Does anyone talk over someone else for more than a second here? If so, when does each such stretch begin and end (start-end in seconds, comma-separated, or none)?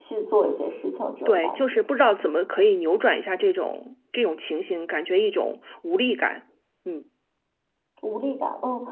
none